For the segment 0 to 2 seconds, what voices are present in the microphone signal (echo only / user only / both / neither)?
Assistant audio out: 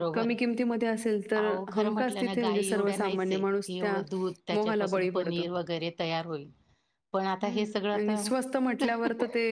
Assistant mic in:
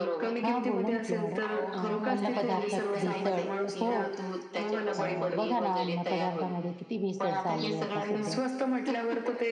both